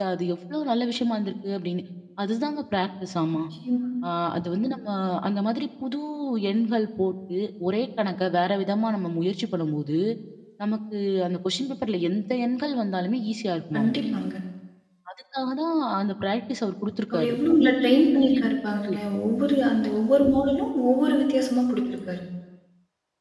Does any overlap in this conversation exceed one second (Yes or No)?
No